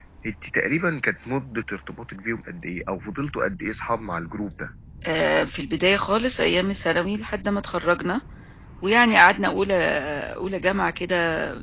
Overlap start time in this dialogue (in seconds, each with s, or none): none